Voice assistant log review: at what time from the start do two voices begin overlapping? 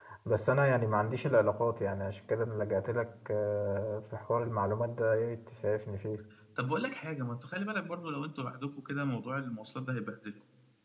none

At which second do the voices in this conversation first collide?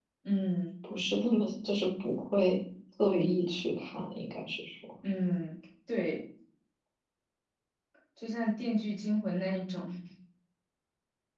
none

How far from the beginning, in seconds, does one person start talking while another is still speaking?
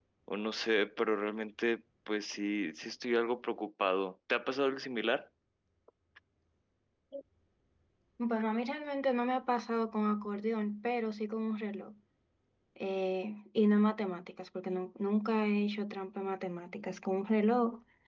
none

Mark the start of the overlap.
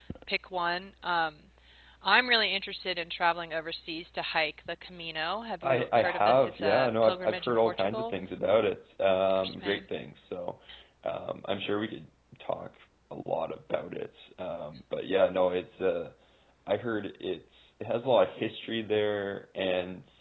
5.6 s

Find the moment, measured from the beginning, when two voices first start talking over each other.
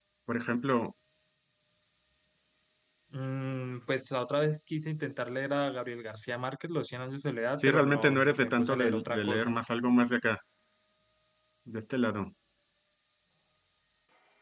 7.6 s

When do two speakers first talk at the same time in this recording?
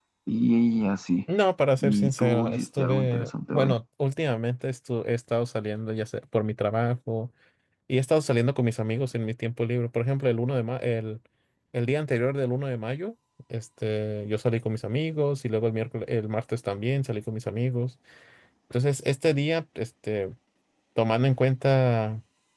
1.8 s

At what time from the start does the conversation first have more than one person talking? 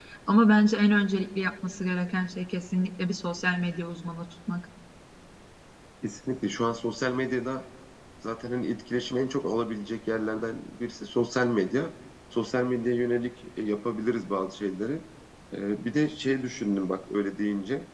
none

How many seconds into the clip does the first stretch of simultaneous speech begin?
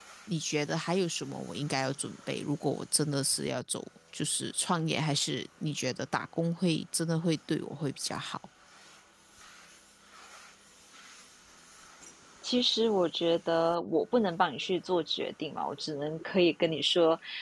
none

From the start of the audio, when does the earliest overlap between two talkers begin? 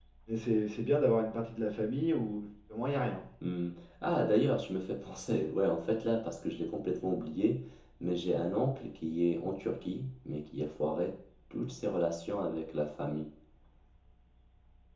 none

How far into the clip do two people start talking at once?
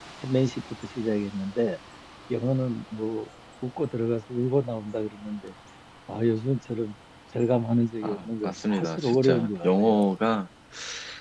8.0 s

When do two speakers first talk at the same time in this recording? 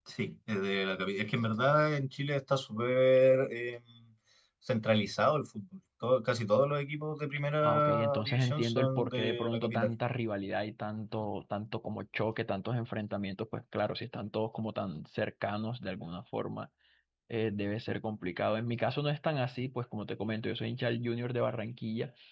7.6 s

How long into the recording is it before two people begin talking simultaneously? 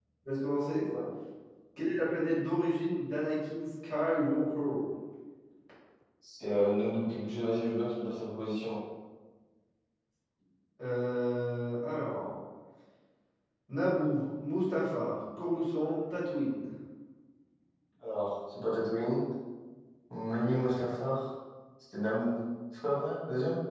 none

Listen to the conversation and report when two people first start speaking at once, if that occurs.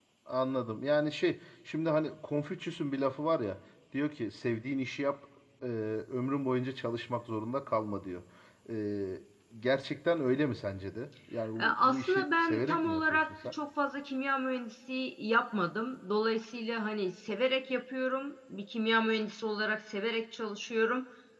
11.6 s

